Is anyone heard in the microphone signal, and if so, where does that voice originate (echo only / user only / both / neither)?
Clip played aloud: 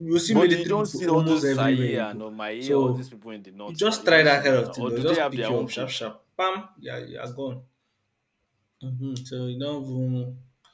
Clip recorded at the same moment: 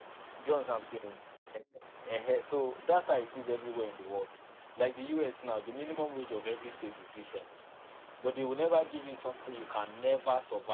user only